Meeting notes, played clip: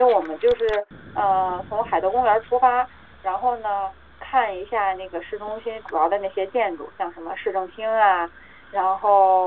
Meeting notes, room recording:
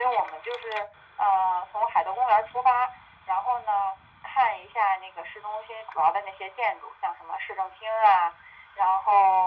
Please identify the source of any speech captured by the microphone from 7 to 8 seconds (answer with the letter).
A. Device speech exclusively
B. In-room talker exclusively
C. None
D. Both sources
A